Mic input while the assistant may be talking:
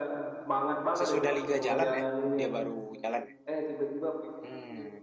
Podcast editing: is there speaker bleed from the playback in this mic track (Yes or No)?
Yes